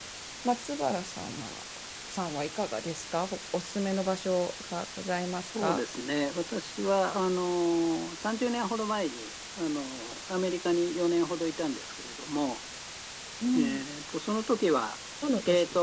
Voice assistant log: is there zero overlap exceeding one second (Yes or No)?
Yes